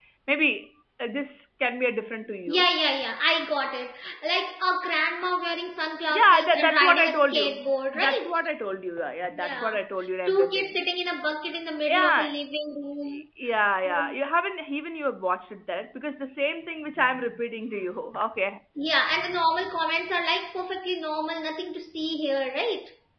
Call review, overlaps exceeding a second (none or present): present